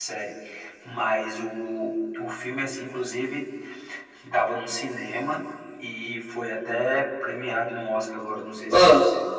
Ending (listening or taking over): listening